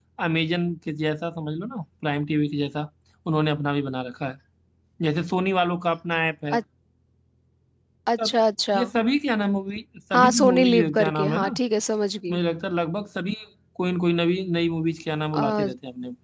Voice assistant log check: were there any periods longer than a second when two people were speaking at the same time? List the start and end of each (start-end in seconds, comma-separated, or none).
10.1-11.5